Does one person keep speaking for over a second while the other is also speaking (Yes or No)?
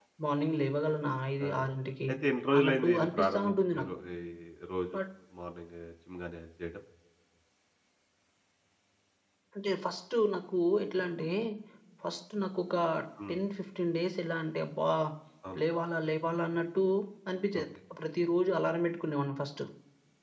Yes